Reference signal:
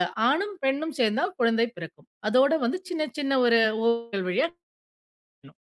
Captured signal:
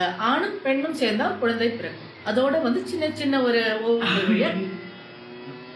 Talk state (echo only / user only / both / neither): both